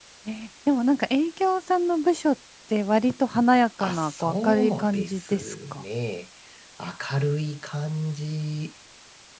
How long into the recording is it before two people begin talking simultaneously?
4 s

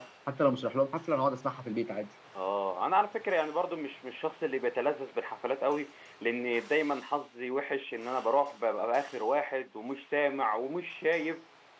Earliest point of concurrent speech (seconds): none

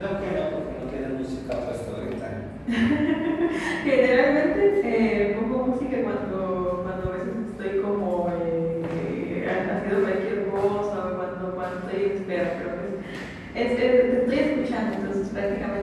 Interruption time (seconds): none

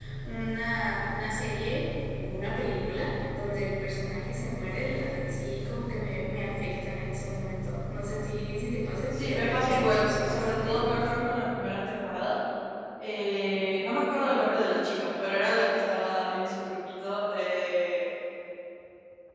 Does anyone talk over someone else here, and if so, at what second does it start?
9 s

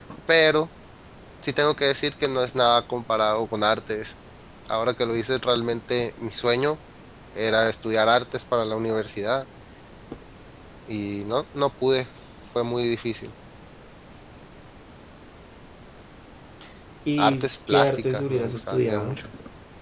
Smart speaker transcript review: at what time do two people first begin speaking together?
17 s

